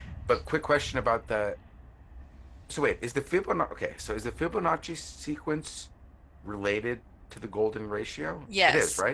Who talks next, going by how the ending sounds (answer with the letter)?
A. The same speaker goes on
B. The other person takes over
B